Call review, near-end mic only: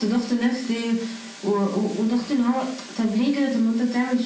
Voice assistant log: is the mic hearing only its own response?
Yes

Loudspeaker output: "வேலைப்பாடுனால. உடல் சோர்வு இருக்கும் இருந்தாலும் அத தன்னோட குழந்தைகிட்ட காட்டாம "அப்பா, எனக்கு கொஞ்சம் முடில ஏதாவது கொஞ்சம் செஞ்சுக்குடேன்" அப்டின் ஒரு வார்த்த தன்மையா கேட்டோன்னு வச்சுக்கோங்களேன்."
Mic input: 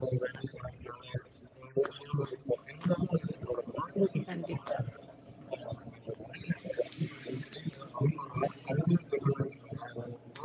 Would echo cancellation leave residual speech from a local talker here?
Yes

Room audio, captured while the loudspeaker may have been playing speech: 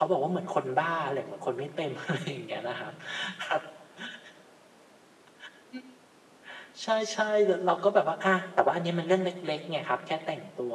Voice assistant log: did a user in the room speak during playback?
No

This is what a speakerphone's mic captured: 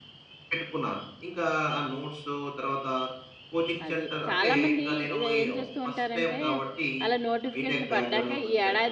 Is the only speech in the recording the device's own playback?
No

